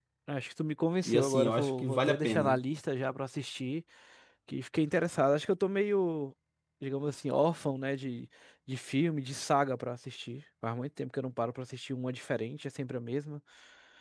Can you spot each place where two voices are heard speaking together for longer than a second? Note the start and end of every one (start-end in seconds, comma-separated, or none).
1.1-2.6